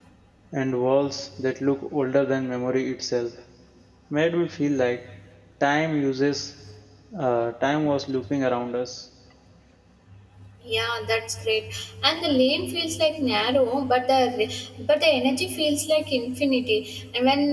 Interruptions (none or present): none